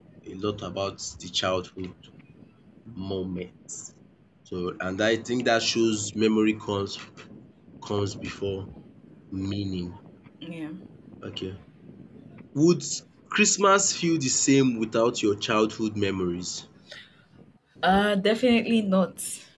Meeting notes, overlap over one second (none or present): none